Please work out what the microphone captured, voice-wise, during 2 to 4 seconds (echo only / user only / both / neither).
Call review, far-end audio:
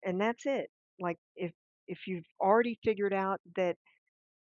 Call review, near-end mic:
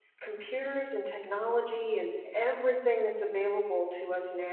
user only